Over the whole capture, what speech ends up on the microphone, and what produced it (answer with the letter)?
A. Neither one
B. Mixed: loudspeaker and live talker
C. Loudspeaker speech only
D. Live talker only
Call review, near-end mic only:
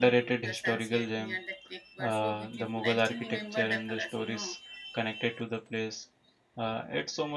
B